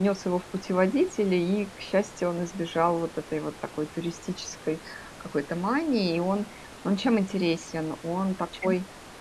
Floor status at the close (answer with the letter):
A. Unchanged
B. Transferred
A